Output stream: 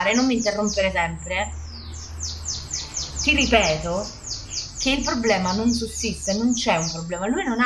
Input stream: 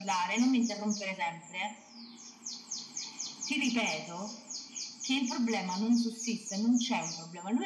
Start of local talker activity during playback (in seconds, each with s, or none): none